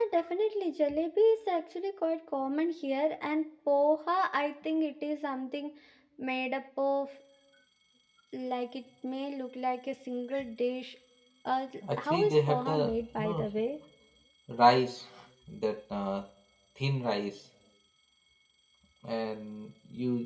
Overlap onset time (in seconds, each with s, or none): 12.0 s